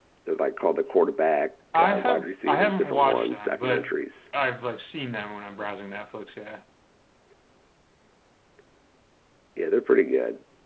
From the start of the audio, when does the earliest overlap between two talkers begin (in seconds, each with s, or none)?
1.7 s